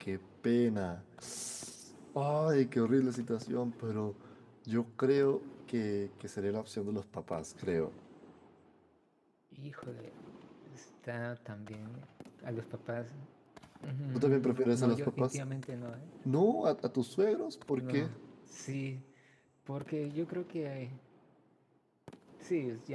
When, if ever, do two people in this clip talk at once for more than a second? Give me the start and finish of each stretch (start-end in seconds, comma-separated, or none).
14.2-15.4